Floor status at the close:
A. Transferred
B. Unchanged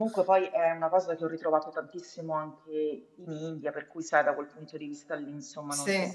B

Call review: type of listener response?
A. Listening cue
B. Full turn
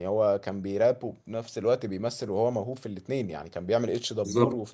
A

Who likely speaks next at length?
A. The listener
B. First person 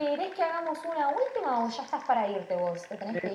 A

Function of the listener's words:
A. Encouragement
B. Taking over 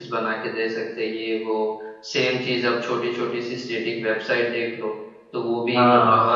A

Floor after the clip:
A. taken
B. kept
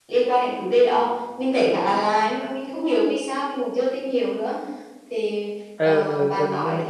A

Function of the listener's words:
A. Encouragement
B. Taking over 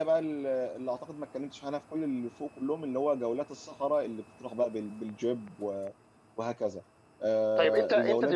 B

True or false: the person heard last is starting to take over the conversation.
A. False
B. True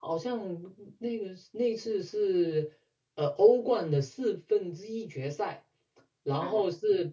A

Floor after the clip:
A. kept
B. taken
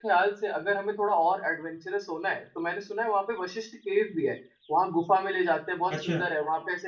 A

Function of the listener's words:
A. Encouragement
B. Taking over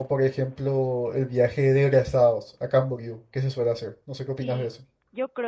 B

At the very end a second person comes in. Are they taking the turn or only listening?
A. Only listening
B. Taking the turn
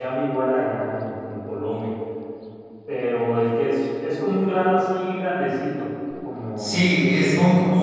B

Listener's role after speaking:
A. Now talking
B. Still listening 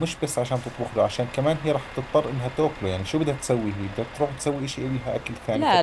A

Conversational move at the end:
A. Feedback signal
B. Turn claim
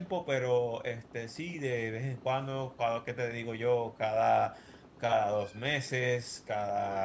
A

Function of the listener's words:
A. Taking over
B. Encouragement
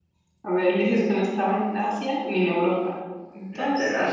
A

